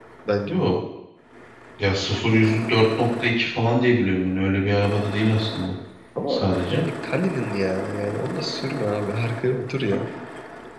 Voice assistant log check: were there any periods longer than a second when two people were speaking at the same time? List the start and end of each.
none

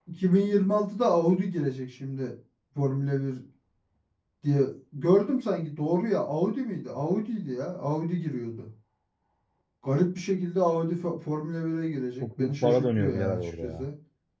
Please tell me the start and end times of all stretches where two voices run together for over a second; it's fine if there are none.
12.2-13.9

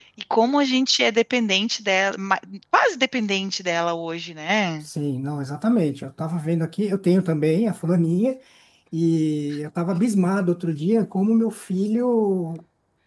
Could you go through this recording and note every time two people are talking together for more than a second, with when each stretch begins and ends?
none

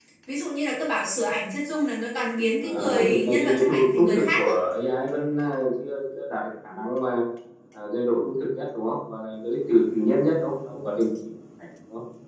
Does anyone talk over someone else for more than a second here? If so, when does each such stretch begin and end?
2.6-4.5

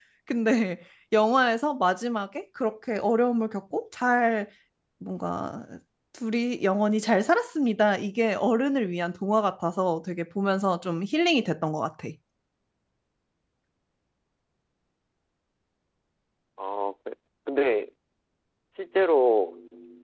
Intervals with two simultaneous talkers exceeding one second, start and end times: none

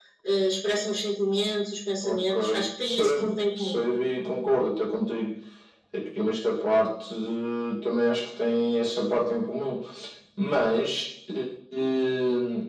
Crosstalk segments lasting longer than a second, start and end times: 2.0-3.8

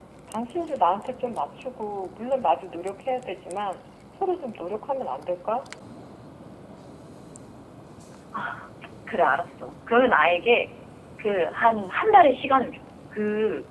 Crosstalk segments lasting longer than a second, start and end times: none

